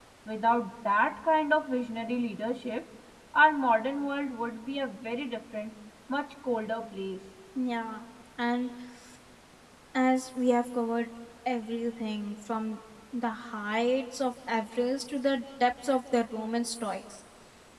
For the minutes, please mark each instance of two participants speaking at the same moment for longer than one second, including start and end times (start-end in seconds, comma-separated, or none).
none